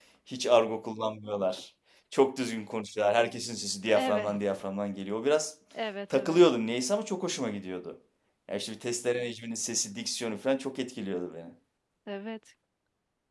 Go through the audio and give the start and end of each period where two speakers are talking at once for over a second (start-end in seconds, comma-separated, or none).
none